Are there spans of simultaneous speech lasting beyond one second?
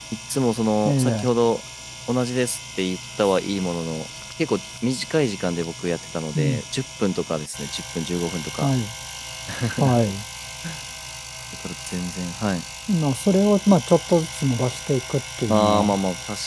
No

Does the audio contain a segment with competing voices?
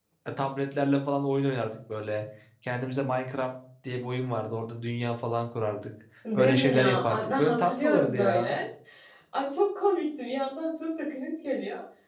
Yes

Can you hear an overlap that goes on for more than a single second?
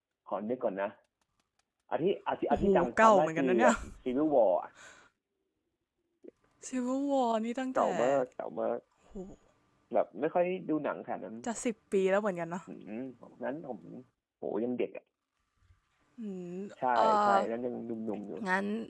Yes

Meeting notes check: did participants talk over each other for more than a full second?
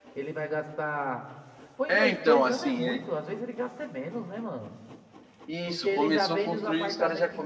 Yes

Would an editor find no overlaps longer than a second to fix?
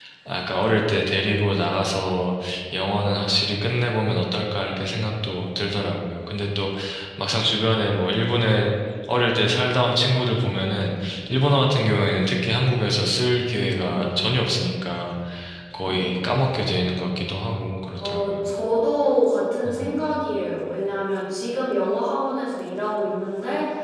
Yes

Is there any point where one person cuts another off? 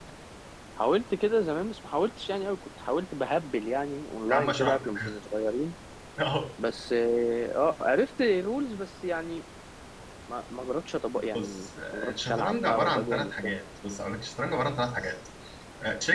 Yes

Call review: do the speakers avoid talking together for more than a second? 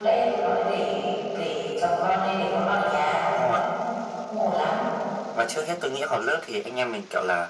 Yes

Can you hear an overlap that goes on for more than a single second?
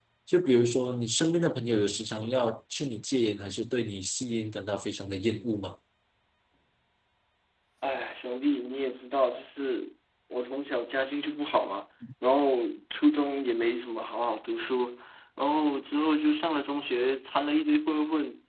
No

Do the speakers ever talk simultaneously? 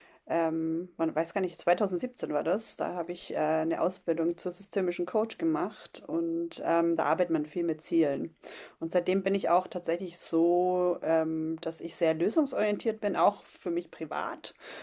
No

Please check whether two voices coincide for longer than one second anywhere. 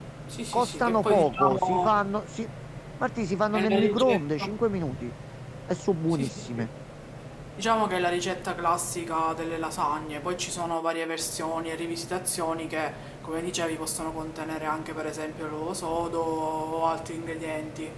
Yes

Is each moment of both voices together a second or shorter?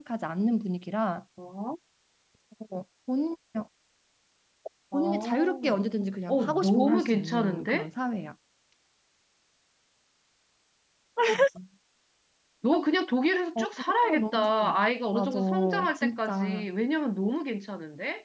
No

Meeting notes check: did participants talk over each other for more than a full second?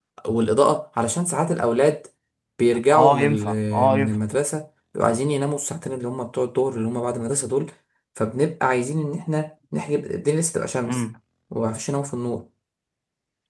Yes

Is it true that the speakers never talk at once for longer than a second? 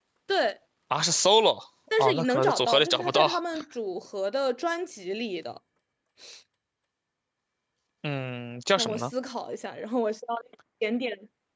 No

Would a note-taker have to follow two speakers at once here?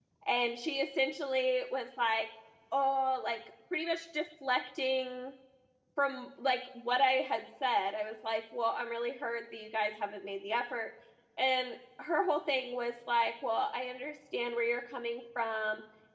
No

